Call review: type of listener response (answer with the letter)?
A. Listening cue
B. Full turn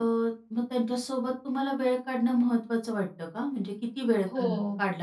B